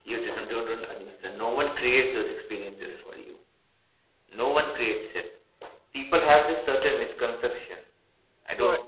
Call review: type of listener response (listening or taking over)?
listening